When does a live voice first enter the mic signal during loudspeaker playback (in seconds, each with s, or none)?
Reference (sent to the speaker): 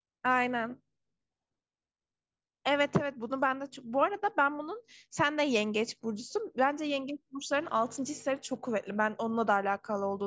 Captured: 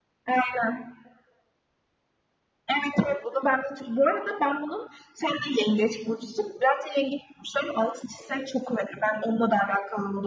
none